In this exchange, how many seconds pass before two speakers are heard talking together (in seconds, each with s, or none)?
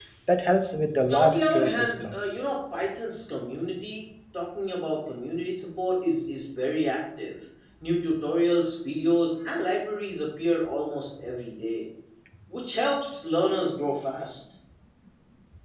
1.1 s